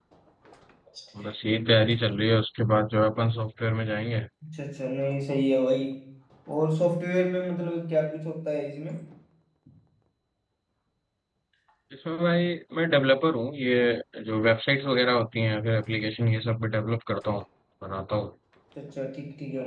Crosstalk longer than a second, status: none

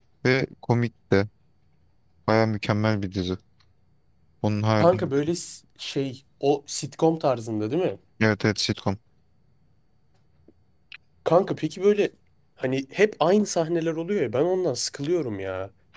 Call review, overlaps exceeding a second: none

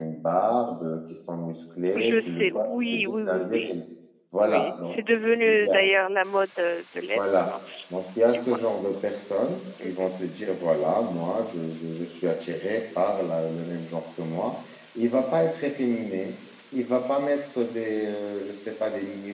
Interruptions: present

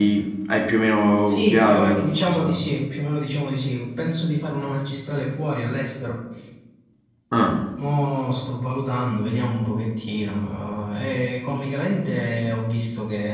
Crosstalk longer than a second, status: present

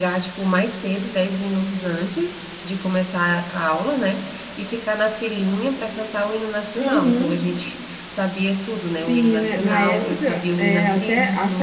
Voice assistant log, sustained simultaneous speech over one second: present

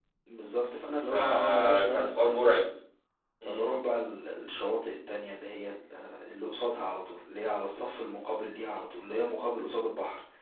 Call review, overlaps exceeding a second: present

